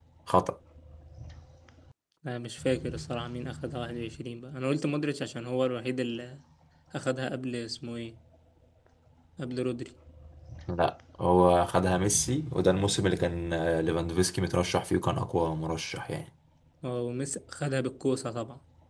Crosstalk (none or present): none